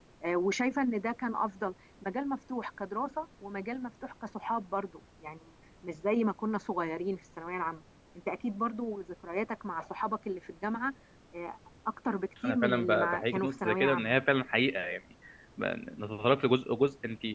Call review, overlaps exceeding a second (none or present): present